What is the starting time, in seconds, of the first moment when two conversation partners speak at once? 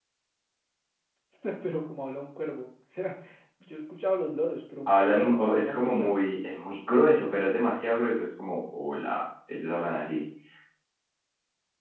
5 s

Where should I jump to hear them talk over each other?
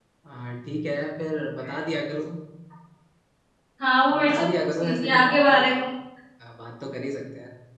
4 s

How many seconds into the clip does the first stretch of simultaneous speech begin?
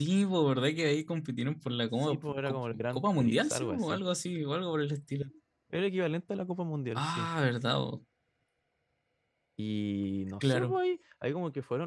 2 s

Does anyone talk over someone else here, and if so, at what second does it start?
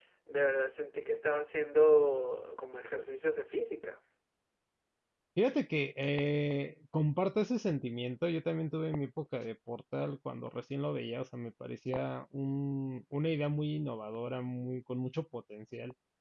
none

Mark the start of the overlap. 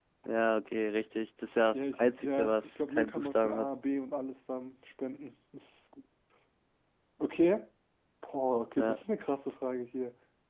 2 s

